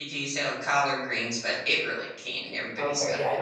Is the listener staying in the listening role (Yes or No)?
No